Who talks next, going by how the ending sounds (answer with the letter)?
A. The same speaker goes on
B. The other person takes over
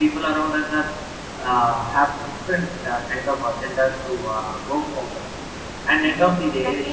B